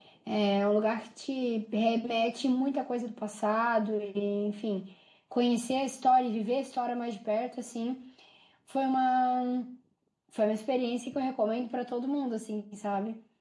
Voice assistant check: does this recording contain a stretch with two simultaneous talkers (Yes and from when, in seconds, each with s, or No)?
No